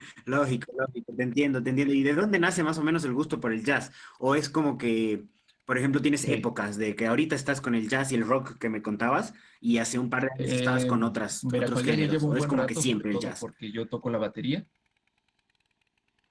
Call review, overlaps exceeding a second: present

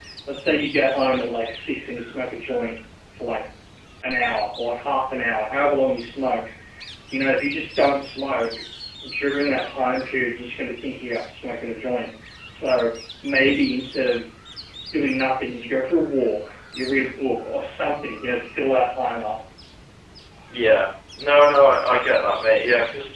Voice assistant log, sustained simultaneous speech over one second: none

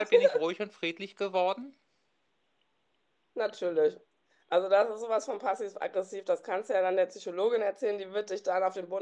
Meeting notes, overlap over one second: none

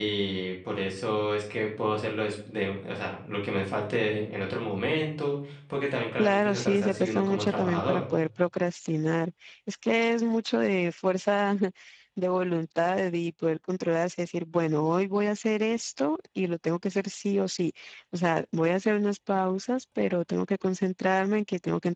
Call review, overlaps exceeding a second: present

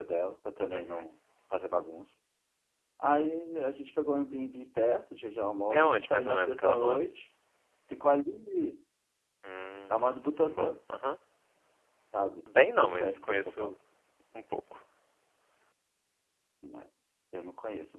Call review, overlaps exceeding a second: present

